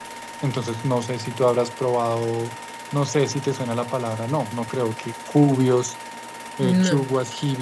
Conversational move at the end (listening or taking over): listening